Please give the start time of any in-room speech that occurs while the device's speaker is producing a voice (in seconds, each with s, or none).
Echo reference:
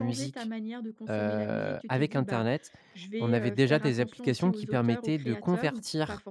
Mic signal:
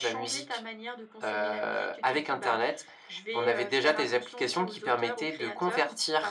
none